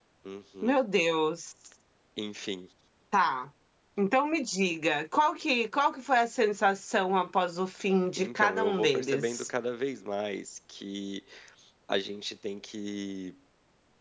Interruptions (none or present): present